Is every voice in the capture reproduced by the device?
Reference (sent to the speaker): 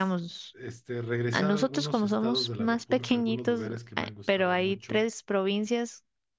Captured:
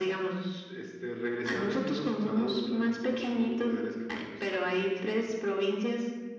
Yes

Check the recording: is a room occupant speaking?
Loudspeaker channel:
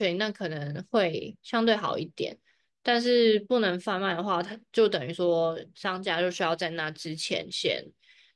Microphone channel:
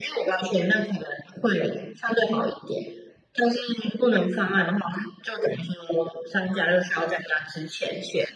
No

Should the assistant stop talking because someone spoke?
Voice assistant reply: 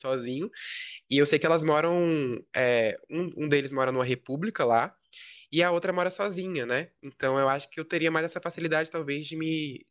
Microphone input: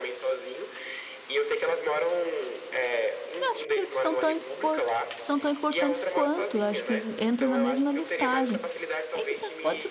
Yes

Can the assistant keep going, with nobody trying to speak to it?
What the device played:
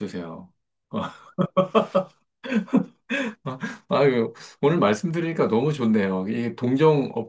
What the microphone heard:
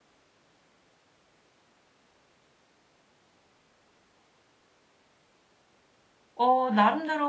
No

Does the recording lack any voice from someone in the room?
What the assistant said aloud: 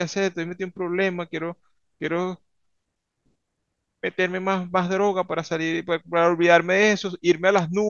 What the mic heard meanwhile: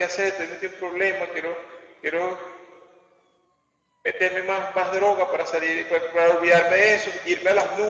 Yes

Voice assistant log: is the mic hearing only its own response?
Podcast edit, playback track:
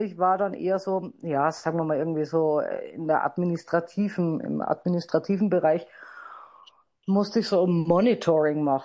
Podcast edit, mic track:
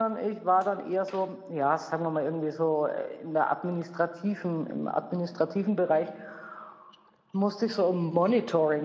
Yes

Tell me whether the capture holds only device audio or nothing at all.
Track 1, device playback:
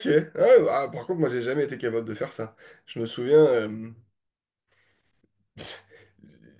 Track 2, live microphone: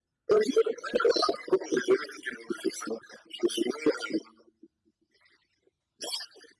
Yes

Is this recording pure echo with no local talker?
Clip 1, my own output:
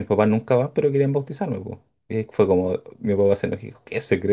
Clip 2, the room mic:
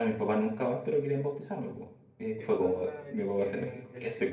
No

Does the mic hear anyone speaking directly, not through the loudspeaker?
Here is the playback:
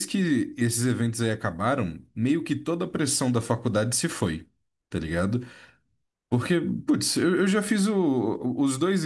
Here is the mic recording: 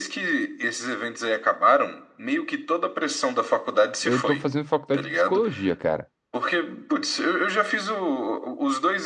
Yes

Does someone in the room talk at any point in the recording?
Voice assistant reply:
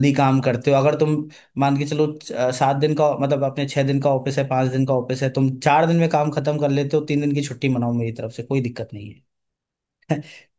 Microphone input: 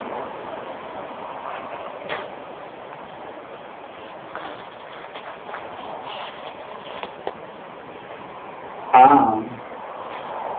Yes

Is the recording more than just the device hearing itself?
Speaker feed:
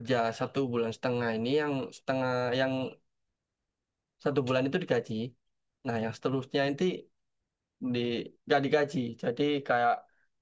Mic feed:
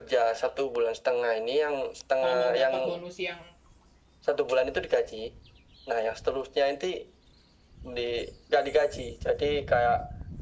Yes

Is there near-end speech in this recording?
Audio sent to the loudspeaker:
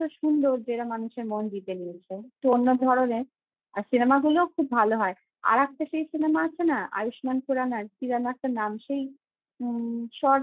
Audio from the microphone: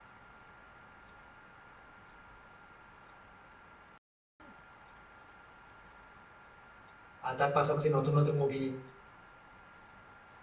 Yes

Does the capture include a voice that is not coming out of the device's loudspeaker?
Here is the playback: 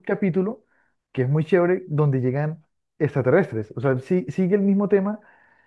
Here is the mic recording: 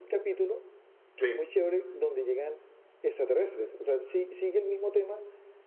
Yes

